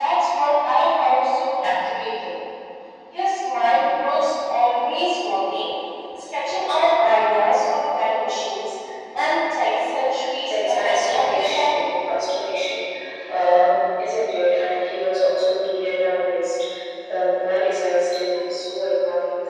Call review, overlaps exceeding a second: present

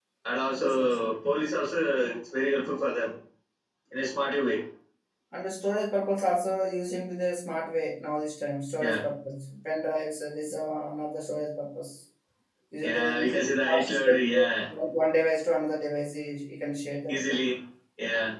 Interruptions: present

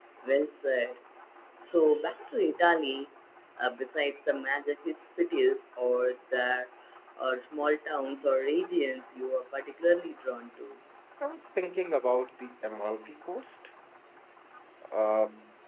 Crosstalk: none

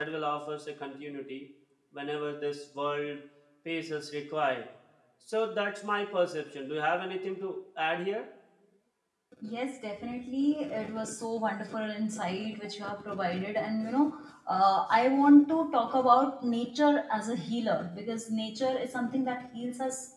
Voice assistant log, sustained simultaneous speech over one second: none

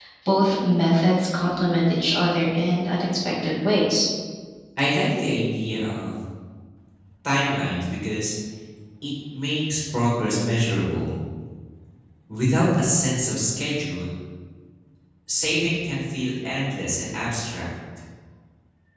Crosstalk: none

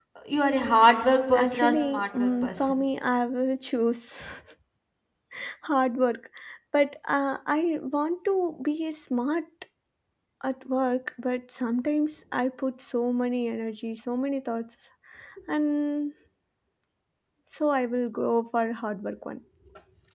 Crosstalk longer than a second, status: present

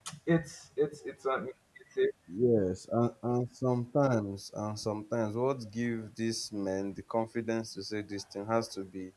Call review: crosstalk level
none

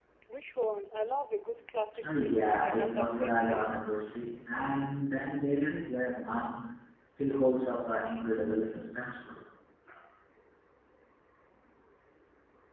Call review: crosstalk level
present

